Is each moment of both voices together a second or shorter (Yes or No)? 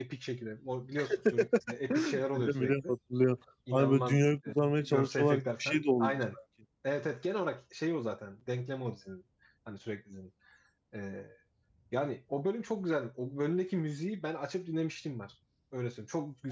No